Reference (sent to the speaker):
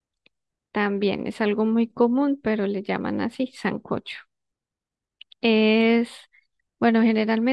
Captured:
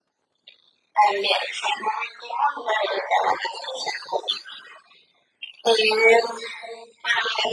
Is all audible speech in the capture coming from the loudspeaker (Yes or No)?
Yes